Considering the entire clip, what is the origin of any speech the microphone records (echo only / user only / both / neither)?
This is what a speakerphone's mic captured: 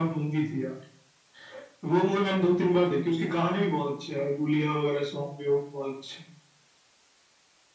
echo only